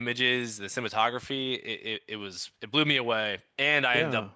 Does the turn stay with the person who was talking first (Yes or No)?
Yes